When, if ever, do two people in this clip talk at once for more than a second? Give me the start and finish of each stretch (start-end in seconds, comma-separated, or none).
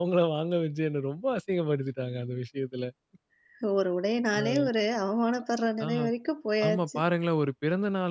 none